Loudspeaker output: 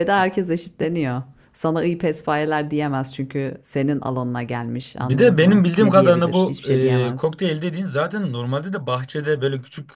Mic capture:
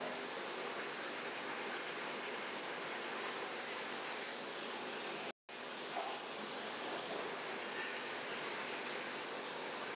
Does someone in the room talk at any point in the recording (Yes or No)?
No